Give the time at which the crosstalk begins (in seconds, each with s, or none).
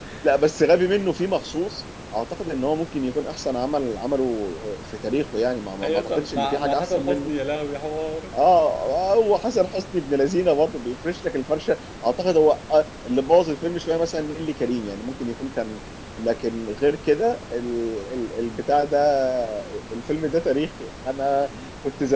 5.8 s